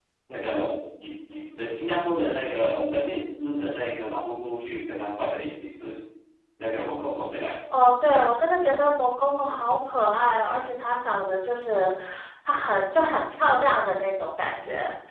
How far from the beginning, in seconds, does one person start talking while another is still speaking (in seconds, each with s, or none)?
none